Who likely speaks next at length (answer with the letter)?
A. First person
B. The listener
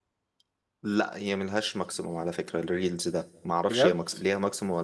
A